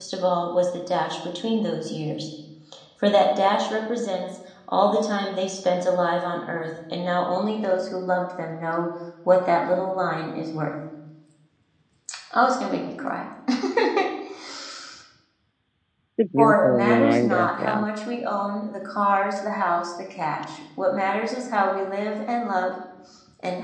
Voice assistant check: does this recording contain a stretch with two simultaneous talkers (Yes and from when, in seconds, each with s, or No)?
Yes, from 16.4 s